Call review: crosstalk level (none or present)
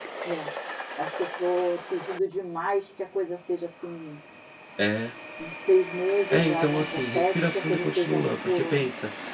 present